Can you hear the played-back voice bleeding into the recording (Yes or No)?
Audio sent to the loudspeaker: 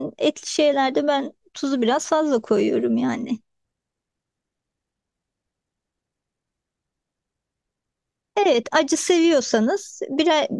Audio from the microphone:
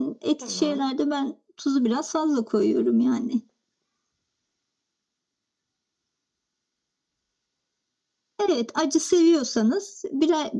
Yes